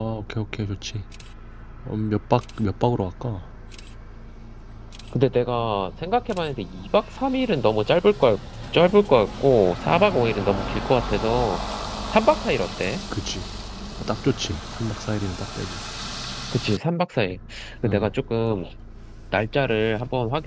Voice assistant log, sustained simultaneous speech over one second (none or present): none